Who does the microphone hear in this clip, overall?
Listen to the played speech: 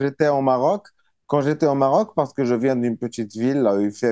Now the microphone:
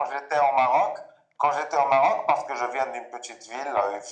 echo only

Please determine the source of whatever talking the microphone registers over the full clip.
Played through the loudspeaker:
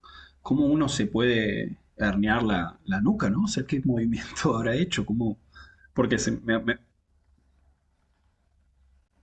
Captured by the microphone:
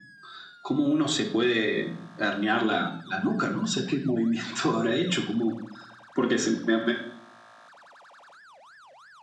echo only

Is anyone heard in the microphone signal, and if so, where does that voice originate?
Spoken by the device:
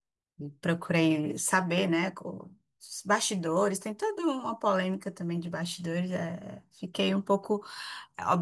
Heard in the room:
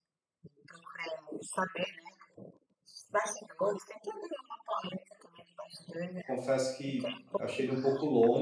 both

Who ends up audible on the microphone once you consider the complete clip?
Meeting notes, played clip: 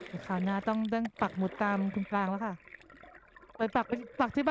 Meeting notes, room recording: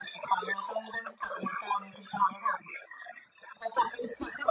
echo only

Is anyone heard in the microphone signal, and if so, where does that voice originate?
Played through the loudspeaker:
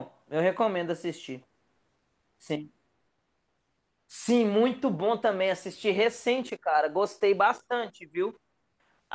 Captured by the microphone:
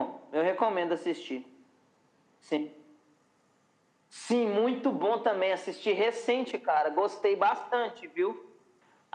echo only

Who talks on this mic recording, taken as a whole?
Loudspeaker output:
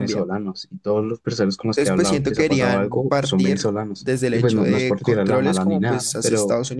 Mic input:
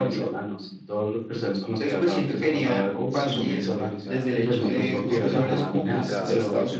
both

